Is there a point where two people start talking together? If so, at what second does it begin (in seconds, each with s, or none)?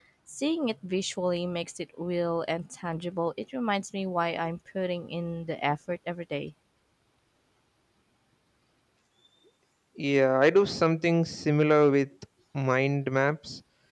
none